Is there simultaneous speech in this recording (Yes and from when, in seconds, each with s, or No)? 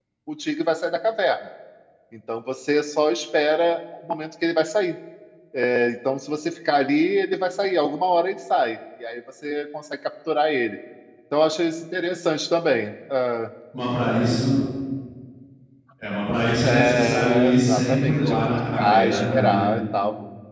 Yes, from 16.6 s